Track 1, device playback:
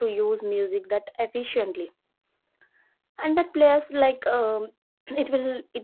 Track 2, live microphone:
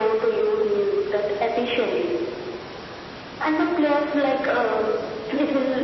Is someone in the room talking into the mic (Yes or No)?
No